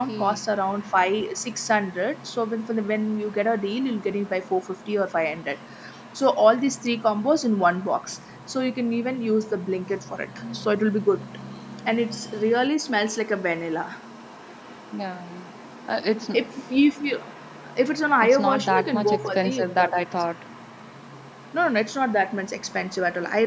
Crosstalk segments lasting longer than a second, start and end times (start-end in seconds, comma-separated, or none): 18.2-20.0